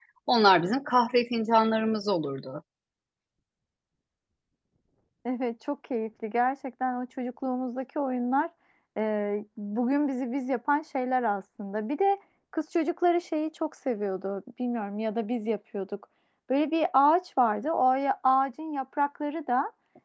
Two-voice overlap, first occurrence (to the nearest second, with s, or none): none